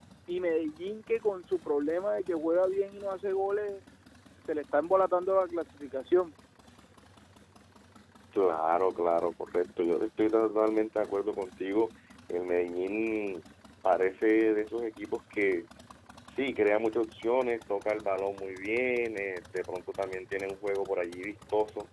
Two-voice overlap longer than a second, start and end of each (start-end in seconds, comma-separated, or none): none